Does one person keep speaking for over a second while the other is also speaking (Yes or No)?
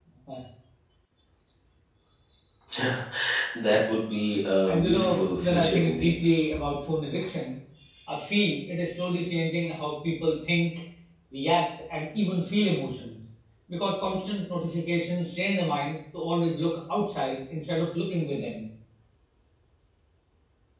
Yes